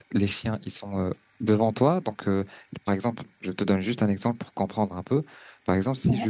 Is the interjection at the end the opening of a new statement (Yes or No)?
No